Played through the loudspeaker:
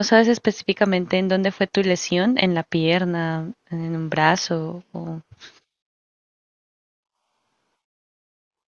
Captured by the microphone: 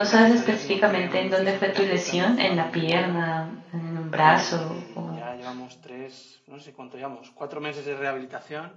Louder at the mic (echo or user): echo